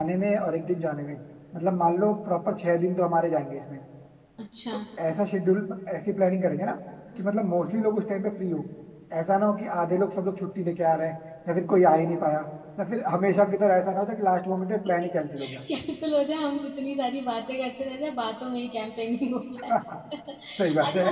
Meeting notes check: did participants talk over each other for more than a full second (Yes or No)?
No